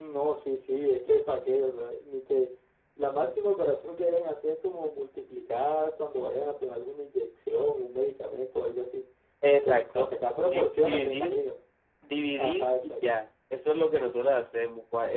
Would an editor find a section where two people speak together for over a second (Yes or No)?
Yes